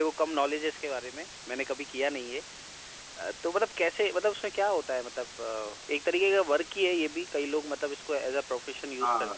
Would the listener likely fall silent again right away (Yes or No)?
No